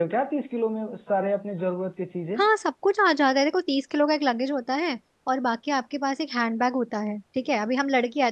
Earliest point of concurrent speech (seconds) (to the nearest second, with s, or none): none